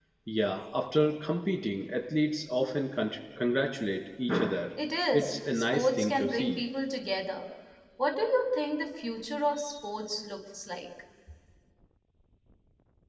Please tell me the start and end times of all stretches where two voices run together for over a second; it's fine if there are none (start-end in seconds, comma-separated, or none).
5.1-6.6